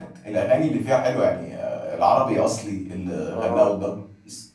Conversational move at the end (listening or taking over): listening